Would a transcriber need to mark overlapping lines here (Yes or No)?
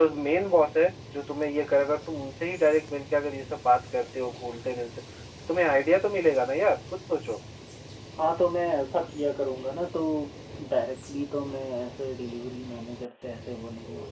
No